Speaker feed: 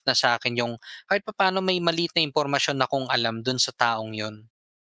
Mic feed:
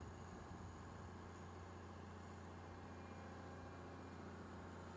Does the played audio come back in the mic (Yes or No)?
No